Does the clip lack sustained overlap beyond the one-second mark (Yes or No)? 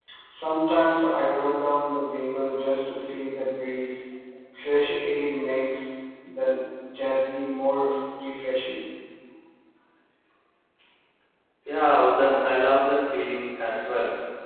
Yes